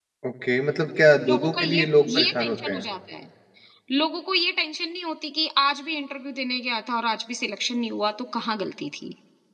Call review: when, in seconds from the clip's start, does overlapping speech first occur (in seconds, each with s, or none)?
1.3 s